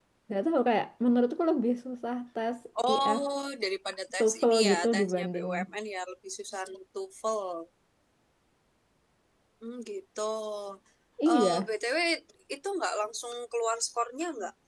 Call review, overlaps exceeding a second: present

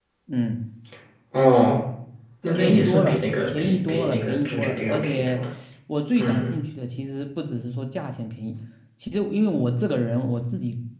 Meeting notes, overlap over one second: present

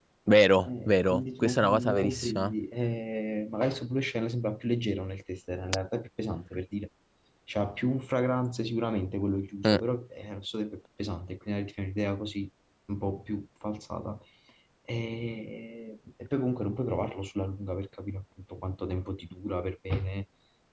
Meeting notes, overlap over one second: present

